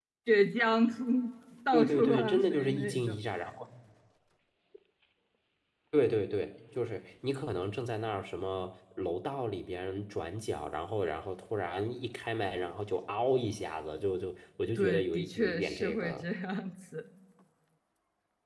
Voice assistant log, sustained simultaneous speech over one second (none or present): present